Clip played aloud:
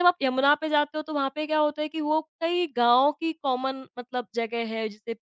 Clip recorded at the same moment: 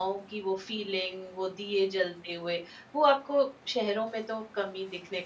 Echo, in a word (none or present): none